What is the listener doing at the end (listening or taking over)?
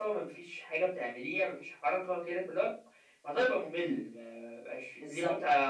listening